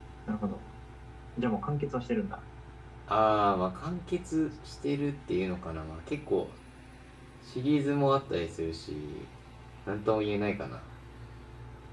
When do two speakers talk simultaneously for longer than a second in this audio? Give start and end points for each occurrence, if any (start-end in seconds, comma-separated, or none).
none